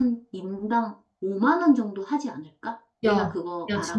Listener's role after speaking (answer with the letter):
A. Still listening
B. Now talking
B